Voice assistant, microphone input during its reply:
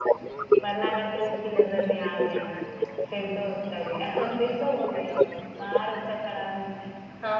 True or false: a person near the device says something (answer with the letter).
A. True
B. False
A